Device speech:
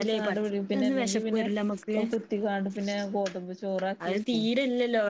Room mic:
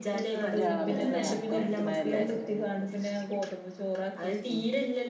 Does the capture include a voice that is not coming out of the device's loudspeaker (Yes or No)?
Yes